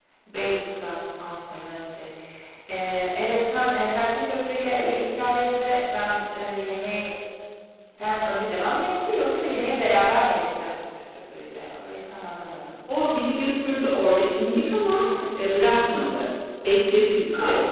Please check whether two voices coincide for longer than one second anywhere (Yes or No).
No